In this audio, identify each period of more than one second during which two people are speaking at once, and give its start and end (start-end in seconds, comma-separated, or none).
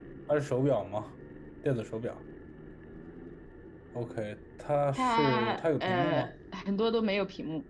5.0-6.3